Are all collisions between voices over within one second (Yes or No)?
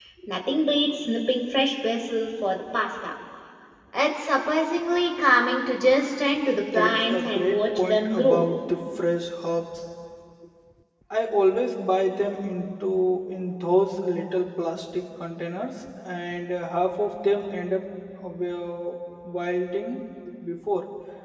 No